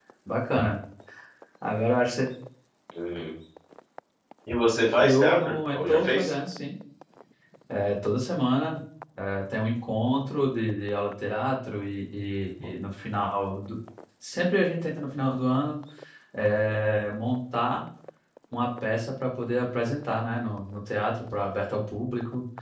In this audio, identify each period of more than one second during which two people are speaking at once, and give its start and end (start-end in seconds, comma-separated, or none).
5.0-6.3